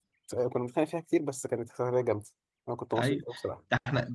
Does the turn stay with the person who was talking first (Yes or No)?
No